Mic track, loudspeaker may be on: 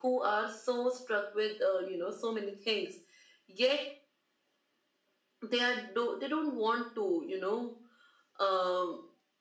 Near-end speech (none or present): none